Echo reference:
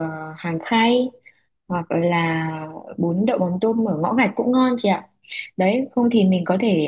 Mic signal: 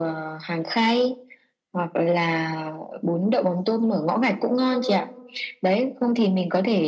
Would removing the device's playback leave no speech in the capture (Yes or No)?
No